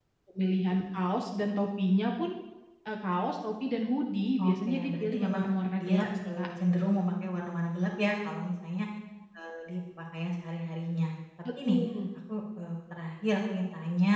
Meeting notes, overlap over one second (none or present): present